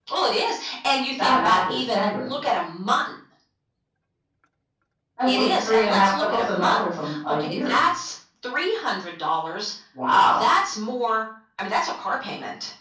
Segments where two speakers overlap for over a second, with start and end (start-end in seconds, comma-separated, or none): 1.2-2.4, 5.3-7.8